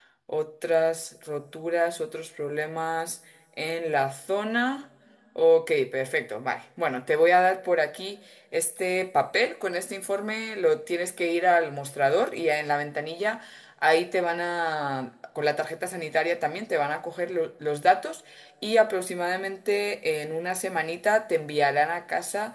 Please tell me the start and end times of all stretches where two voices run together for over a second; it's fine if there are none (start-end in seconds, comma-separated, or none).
none